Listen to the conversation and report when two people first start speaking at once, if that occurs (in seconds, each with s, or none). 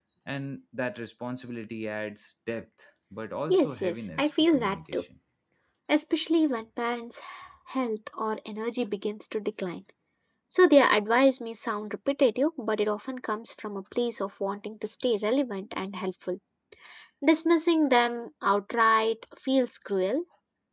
3.5 s